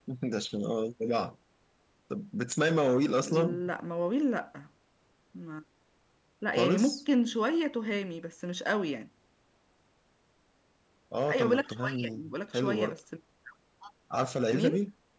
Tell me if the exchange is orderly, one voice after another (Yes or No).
No